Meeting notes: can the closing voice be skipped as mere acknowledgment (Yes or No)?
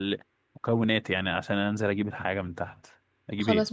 No